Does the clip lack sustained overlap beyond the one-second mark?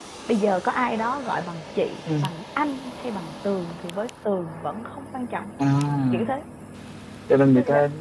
Yes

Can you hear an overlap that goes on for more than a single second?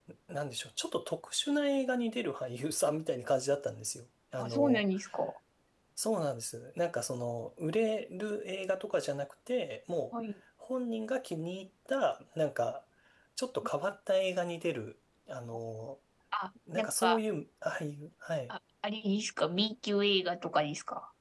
No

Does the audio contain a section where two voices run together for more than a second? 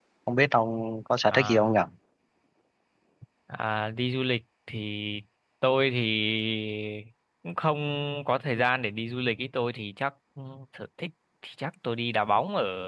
No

